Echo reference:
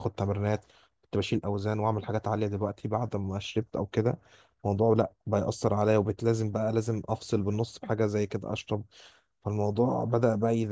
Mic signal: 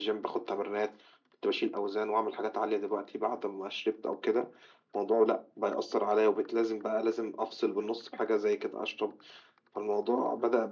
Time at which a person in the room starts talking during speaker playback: none

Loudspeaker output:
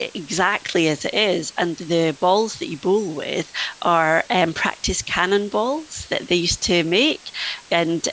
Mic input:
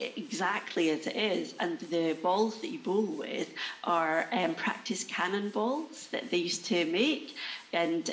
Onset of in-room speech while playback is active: none

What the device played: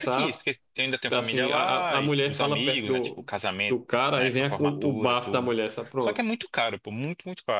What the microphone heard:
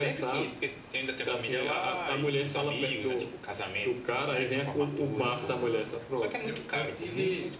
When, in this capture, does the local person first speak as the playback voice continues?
5.2 s

